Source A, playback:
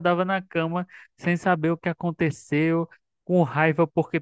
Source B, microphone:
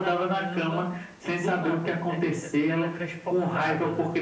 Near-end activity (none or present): present